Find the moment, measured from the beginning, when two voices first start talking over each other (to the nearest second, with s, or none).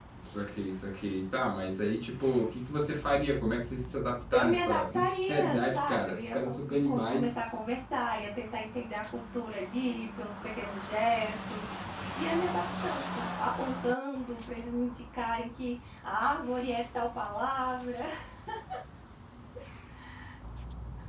4 s